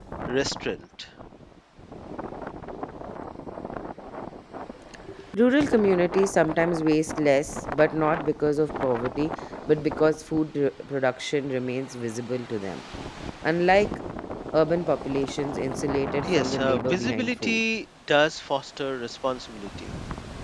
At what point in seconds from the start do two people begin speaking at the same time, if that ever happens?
16 s

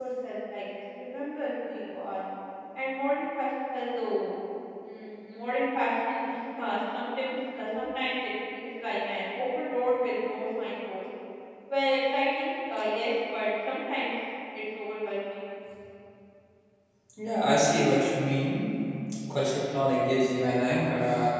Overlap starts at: none

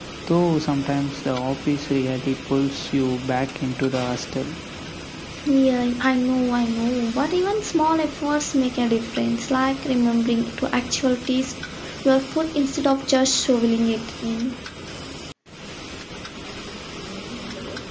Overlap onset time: none

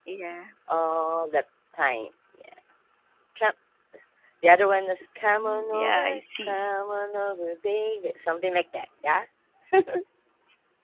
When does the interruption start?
5 s

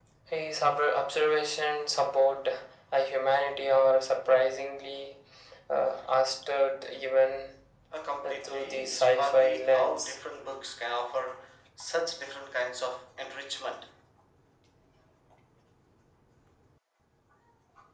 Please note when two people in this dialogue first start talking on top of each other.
8 s

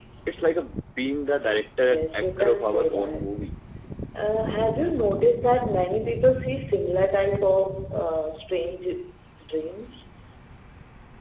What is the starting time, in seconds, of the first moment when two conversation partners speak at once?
2 s

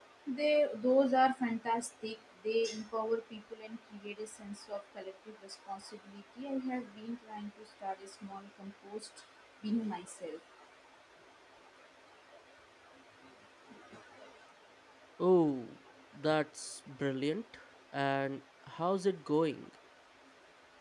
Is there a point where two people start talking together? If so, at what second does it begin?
none

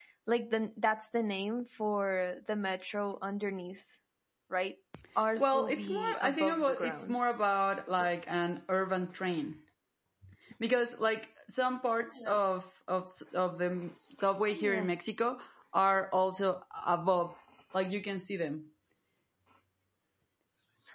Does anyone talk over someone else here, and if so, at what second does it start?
5 s

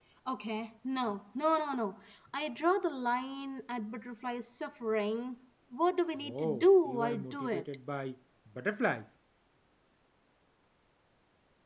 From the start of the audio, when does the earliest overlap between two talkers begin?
6 s

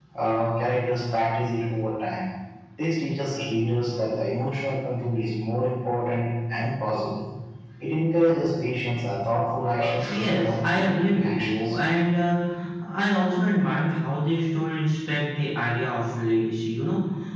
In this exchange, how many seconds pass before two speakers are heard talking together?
10 s

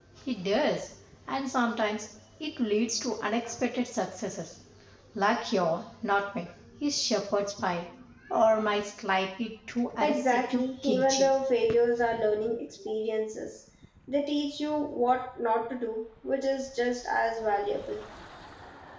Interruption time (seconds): 10 s

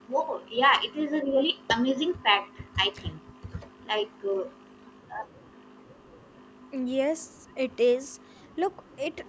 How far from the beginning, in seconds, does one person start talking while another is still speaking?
none

